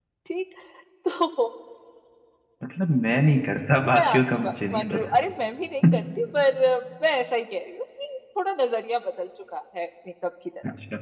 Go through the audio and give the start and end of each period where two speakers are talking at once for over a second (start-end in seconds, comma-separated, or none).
3.8-5.2